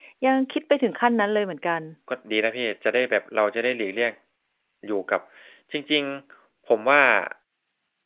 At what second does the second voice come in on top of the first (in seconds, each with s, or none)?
none